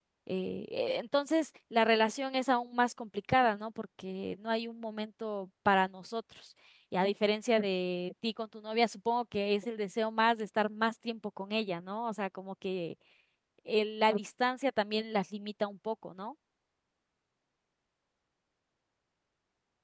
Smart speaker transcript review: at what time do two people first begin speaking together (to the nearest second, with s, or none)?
none